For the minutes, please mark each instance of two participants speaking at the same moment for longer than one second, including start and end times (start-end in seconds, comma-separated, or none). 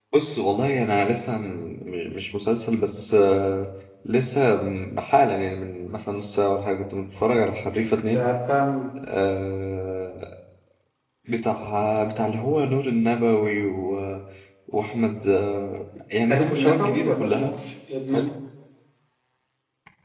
16.3-17.6